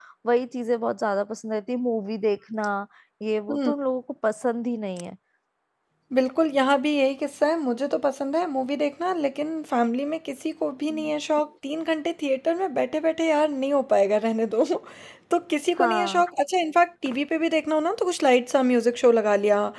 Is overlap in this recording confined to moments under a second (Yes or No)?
Yes